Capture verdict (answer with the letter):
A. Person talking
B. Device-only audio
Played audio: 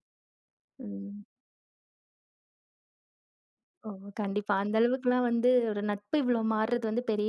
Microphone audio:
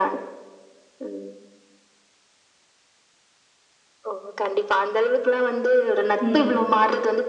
A